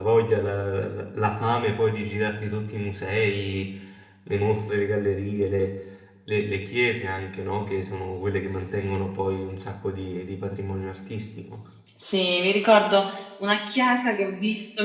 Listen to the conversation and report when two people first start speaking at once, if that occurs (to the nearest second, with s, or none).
none